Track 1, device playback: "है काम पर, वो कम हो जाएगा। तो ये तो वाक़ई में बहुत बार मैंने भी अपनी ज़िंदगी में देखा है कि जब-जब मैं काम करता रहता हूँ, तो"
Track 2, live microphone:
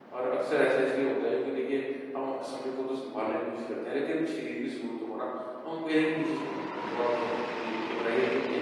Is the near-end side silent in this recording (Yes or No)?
No